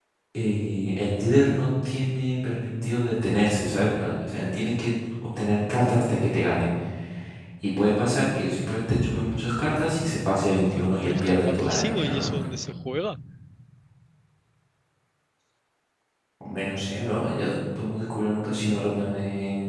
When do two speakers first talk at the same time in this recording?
10.6 s

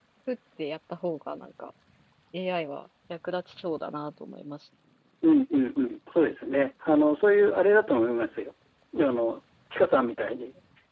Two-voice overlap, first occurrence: none

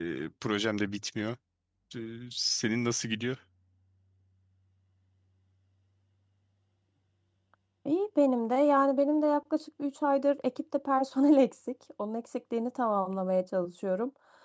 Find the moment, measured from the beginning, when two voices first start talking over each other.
none

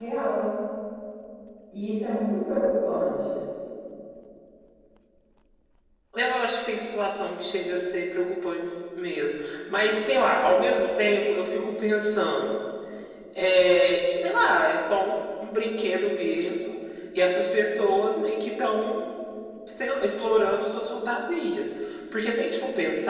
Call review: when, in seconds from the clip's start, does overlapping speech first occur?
none

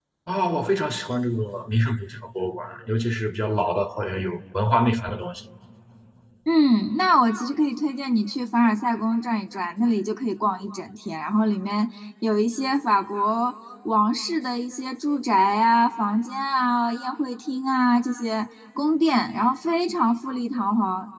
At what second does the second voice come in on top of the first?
none

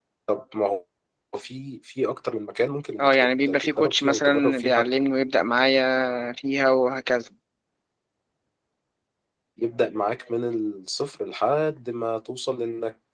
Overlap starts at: 3.0 s

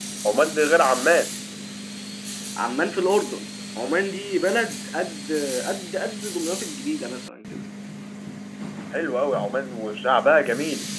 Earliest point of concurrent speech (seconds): none

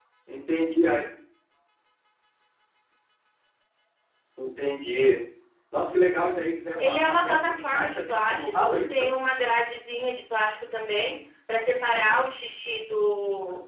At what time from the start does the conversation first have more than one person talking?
6.8 s

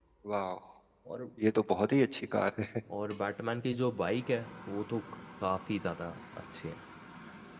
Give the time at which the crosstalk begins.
none

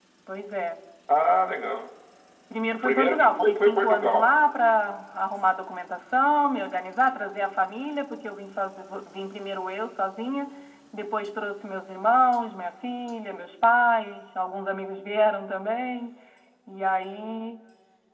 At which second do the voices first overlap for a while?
2.7 s

